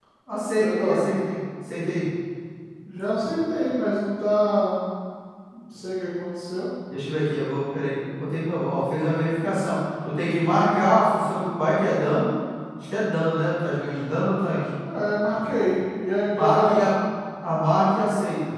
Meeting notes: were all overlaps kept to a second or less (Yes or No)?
Yes